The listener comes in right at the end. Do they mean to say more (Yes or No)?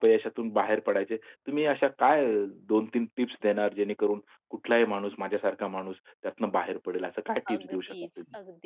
Yes